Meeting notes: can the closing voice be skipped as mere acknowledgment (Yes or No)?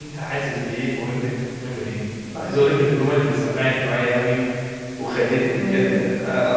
Yes